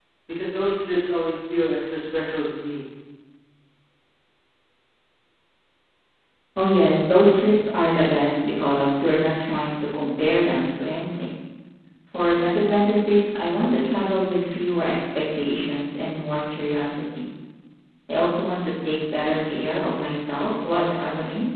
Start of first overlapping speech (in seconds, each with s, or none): none